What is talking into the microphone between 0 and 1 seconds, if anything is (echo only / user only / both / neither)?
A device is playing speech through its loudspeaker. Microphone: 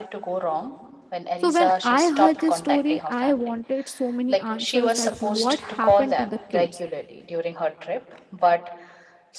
echo only